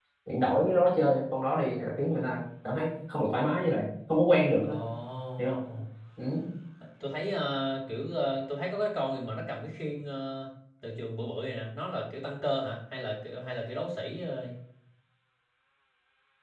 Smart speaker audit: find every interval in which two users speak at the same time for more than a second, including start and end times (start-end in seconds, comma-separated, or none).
none